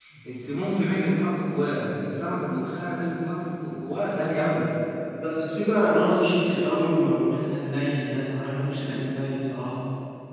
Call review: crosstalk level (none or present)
none